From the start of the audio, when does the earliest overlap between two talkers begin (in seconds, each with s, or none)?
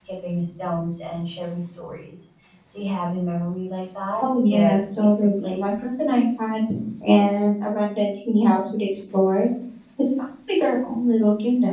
4.2 s